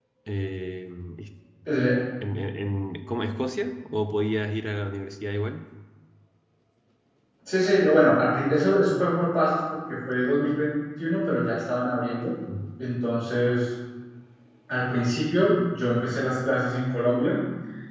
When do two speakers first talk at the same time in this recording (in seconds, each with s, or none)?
none